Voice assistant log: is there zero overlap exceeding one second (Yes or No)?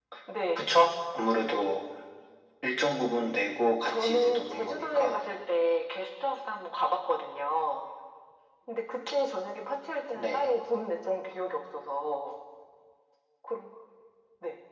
No